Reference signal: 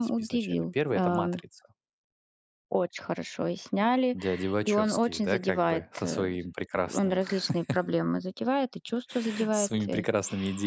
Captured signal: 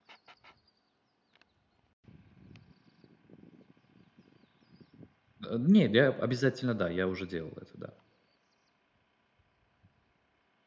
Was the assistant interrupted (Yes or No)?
Yes